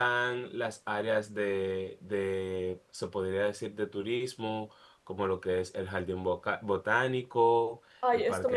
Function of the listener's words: taking over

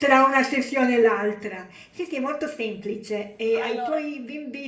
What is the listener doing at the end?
listening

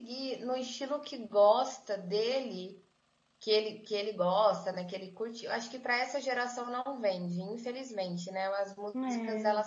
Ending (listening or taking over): listening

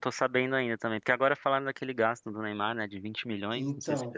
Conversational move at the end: taking over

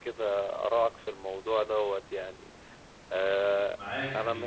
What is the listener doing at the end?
taking over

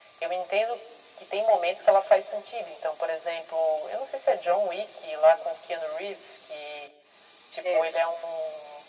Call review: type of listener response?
listening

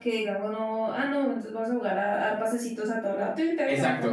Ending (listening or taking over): taking over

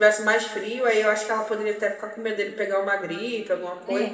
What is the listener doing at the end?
taking over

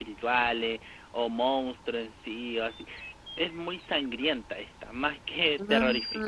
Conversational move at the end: listening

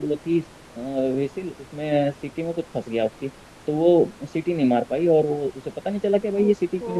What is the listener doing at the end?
listening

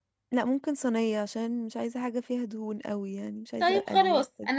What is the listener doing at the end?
taking over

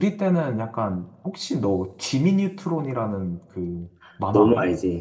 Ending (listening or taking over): taking over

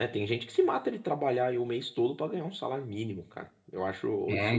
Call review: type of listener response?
listening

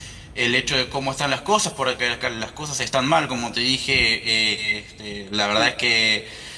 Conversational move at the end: listening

